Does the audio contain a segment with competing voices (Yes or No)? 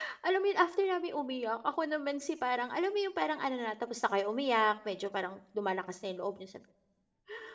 No